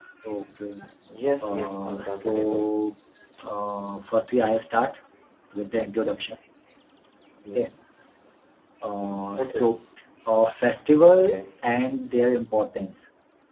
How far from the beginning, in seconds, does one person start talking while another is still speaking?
1 s

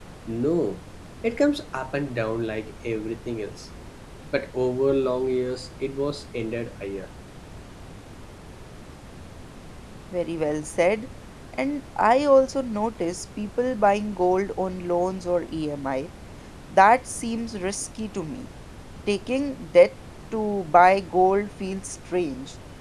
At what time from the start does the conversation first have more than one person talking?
none

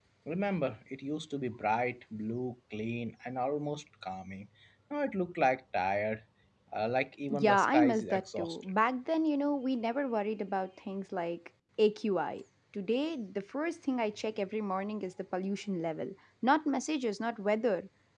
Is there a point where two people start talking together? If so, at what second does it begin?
7 s

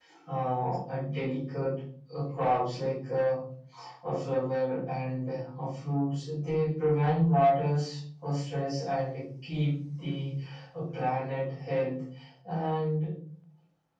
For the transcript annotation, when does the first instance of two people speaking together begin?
none

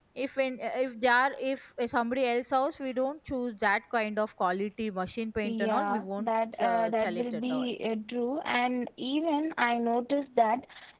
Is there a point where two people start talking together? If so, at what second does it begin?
5 s

